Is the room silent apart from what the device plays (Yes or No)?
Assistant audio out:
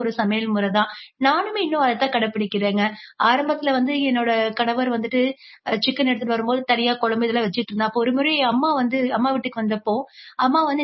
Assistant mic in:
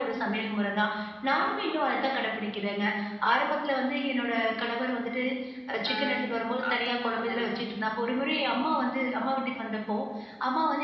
No